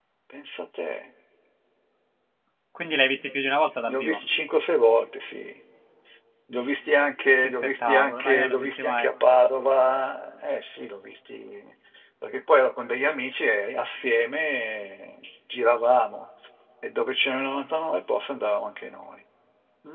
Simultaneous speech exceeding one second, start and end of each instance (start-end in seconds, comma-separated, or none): 7.4-9.1